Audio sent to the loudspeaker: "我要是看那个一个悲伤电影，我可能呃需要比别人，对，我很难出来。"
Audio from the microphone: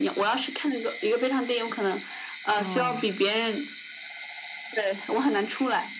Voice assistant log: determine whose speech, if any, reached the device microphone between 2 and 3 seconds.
both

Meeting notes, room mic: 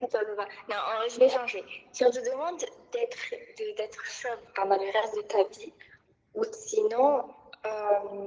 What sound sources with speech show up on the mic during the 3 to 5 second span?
echo only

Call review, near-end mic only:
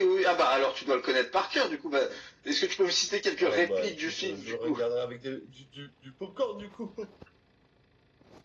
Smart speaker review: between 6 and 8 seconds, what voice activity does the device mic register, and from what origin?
user only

